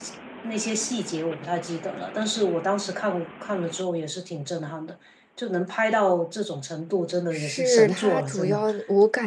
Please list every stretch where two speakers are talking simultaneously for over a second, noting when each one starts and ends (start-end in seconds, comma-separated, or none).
7.3-8.6